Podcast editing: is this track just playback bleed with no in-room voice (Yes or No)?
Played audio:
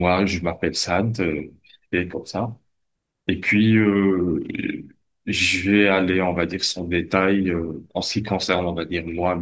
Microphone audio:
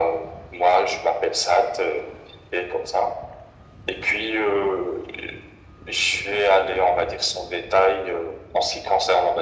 Yes